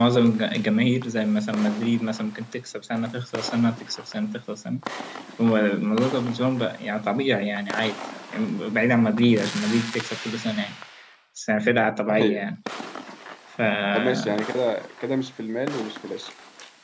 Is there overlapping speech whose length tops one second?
No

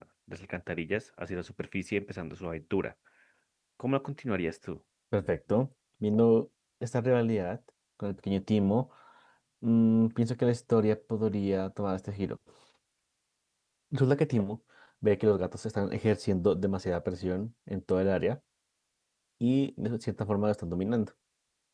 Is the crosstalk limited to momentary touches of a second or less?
Yes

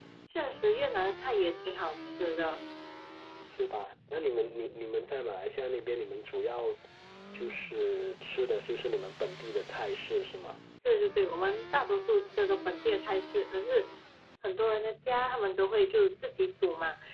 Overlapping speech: No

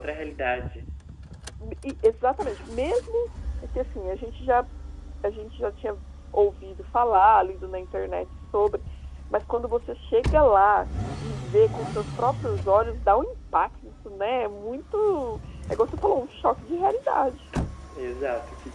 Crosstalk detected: No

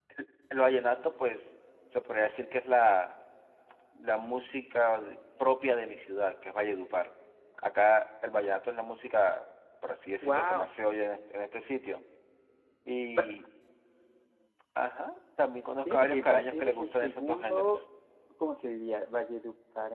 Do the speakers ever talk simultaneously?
Yes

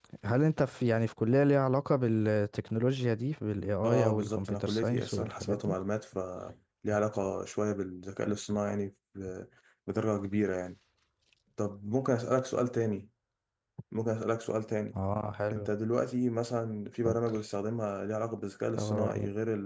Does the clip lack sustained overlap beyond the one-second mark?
No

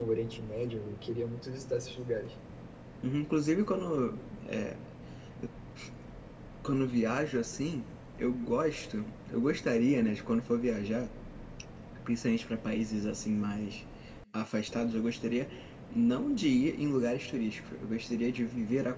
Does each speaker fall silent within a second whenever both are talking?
Yes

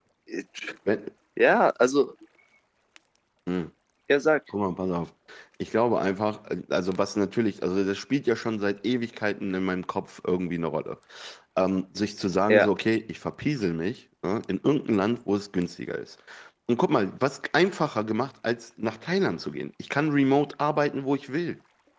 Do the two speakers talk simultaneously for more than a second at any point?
No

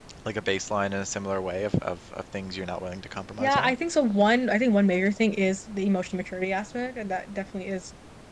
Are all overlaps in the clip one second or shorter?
Yes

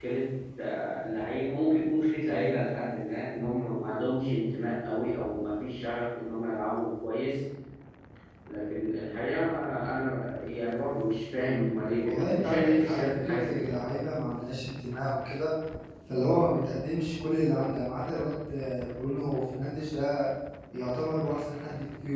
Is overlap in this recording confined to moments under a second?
No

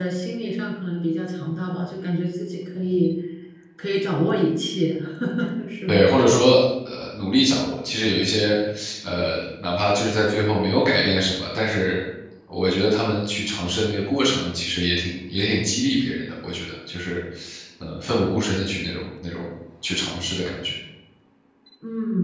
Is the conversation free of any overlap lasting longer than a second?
Yes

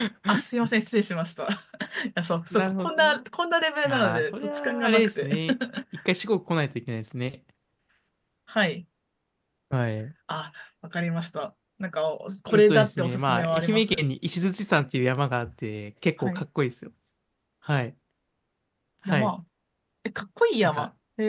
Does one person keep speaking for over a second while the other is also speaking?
Yes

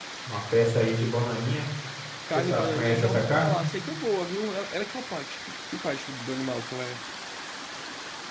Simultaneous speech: Yes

